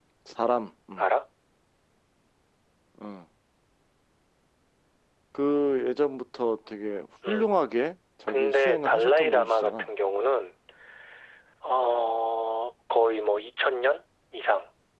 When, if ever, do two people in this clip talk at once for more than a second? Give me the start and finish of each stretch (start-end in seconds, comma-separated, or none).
8.3-9.9